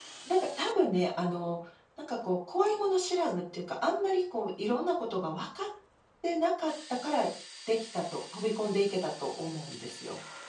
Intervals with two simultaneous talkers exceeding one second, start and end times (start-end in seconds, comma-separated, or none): none